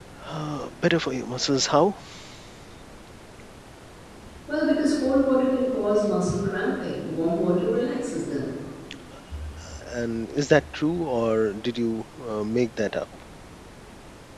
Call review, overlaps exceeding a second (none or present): none